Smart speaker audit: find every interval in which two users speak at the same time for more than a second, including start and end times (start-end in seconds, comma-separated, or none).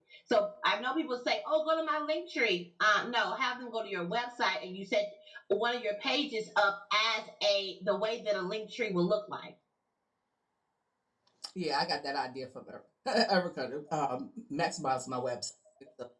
none